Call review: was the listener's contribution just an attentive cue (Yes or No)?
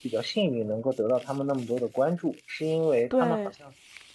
Yes